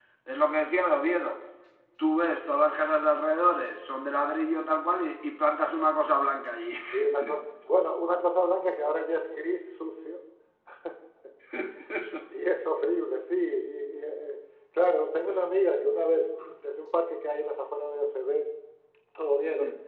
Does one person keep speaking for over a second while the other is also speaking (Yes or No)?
No